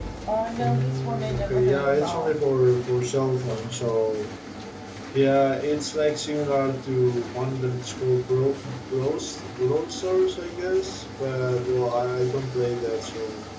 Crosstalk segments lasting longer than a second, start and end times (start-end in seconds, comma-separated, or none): 0.6-2.4